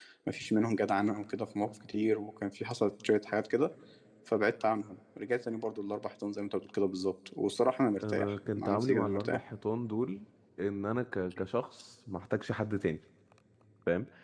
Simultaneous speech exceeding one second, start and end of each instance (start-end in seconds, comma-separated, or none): 8.1-9.4